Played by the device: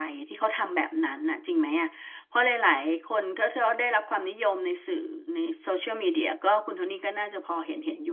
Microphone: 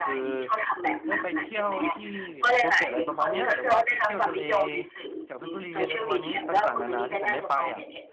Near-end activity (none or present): present